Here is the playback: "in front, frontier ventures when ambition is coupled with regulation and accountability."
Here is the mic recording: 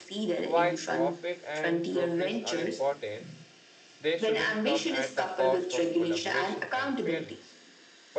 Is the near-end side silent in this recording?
No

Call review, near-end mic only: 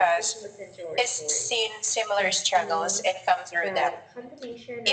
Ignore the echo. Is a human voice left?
Yes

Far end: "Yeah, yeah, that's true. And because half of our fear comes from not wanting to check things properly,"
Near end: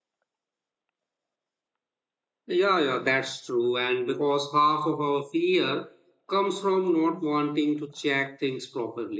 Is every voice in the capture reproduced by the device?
Yes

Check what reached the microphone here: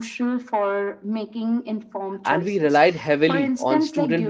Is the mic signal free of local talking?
No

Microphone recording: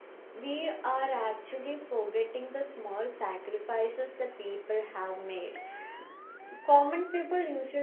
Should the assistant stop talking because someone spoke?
Yes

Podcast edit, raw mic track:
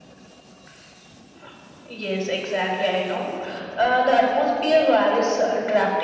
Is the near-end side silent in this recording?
Yes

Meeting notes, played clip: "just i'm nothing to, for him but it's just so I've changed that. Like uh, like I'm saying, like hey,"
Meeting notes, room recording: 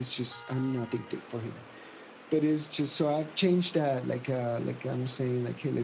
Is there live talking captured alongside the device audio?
No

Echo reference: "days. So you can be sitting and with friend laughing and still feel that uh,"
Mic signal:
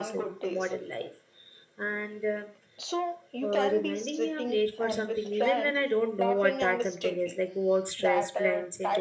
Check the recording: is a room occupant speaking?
Yes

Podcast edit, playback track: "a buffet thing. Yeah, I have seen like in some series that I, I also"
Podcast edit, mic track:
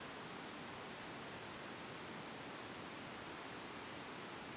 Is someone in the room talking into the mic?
No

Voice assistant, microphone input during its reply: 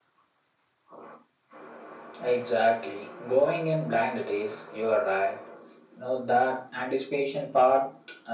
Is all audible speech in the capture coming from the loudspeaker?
Yes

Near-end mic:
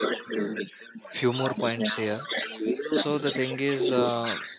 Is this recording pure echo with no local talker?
No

